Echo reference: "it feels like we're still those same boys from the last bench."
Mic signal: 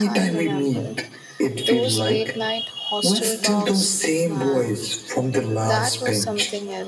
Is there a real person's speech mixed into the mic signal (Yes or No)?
Yes